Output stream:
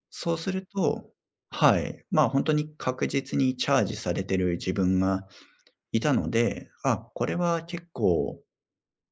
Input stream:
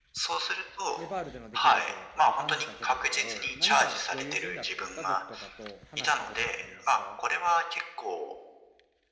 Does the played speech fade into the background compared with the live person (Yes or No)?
No